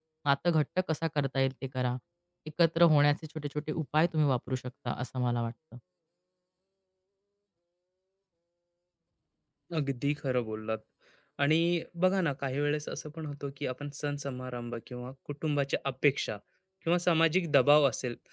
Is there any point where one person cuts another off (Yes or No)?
No